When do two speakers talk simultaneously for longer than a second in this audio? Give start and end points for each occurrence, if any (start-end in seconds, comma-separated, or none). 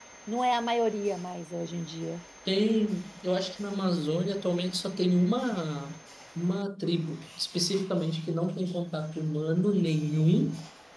none